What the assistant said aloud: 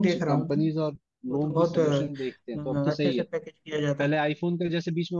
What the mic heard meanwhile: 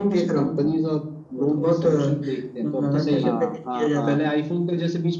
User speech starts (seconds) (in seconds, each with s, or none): 3.2 s